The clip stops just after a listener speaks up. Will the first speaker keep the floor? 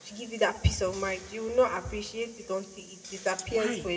No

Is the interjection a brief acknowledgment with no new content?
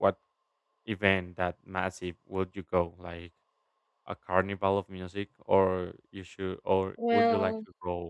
Yes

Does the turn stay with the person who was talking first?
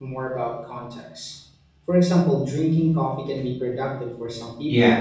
No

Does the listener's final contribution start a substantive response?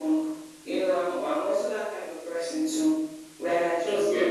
No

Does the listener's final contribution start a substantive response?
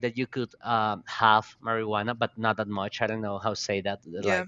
Yes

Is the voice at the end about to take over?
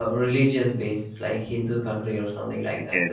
No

